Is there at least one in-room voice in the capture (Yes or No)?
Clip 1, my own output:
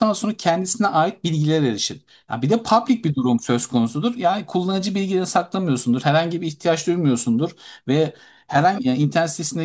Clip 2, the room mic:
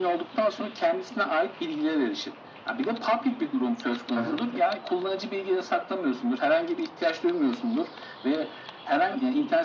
Yes